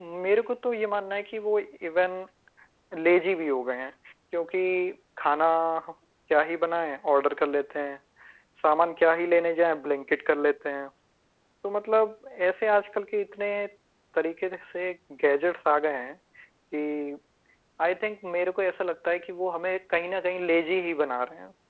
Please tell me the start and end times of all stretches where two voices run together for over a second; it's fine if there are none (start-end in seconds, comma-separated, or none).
none